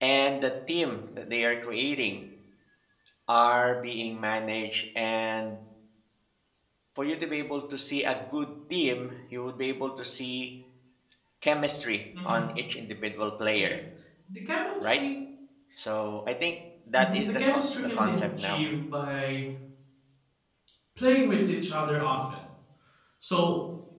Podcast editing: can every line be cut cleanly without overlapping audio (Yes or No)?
No